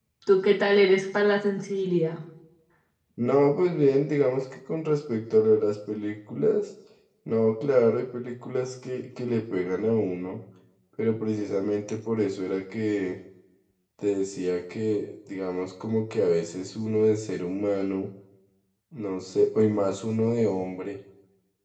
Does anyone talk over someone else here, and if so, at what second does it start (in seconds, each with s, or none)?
none